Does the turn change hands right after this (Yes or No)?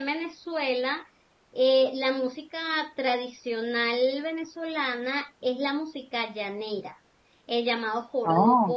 No